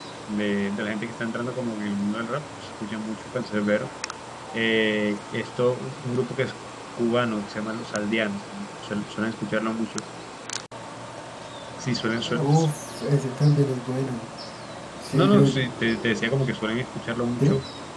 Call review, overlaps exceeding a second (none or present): none